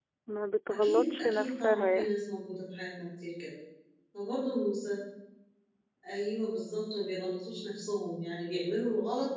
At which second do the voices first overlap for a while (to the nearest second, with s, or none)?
1 s